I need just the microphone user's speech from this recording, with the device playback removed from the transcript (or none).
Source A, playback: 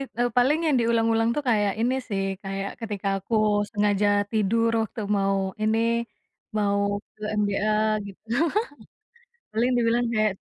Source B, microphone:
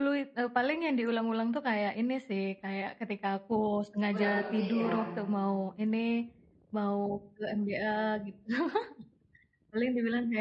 Udah ngerti ya?